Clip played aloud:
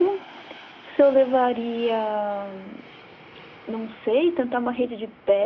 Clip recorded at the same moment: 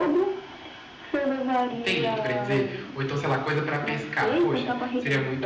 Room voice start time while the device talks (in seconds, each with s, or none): 1.7 s